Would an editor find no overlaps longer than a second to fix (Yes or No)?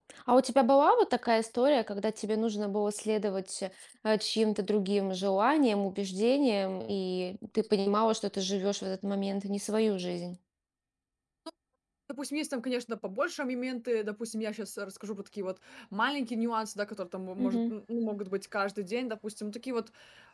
Yes